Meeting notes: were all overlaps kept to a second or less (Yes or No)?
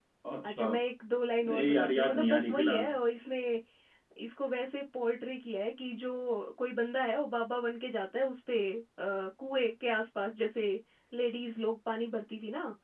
No